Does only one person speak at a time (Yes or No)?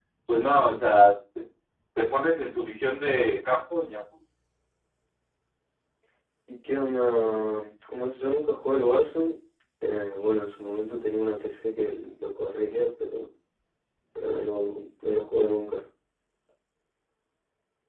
Yes